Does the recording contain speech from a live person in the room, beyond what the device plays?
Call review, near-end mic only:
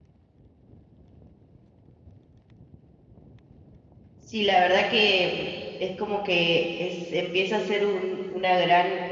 Yes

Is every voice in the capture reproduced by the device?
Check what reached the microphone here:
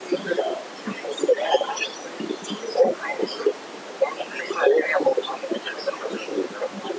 Yes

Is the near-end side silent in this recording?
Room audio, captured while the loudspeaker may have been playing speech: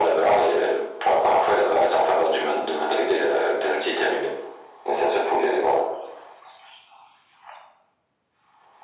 Yes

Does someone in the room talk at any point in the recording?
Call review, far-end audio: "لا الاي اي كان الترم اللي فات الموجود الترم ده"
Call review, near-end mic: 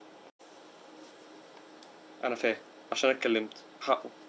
Yes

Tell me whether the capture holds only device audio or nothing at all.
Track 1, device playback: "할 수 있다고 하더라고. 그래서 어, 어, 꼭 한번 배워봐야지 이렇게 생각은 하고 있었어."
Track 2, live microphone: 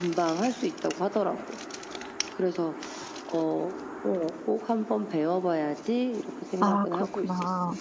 No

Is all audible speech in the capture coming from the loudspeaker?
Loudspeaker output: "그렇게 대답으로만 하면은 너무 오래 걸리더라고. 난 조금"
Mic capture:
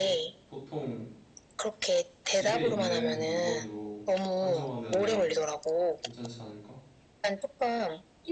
No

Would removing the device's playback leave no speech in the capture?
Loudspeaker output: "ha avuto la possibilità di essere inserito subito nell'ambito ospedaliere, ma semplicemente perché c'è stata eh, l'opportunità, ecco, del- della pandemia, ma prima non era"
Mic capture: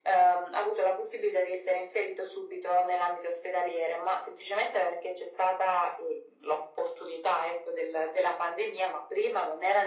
Yes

